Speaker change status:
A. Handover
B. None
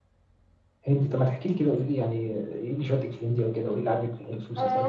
A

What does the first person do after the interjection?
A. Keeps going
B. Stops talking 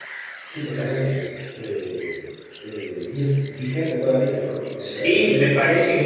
B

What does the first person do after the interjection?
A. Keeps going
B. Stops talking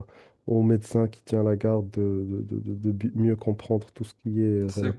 B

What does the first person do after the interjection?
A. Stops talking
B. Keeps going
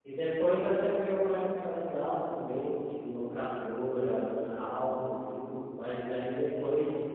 B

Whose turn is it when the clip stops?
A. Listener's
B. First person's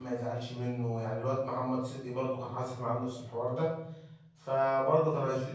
B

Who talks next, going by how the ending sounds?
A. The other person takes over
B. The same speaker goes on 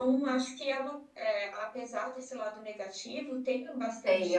A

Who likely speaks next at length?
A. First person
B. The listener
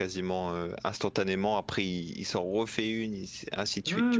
B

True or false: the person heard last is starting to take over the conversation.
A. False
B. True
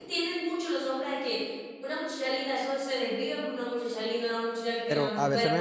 B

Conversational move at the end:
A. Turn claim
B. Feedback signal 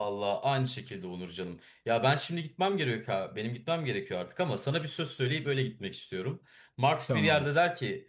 B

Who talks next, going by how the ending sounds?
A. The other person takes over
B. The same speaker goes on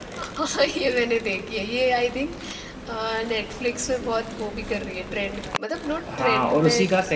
A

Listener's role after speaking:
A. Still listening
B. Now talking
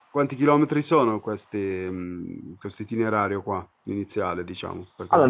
B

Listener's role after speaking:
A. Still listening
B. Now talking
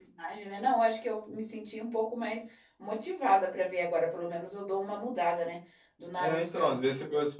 B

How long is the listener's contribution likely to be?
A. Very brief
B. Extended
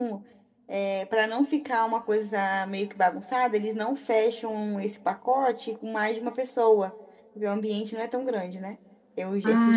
B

